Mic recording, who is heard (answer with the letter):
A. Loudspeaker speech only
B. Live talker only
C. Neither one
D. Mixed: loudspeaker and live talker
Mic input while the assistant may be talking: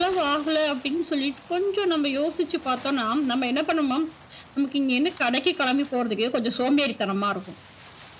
A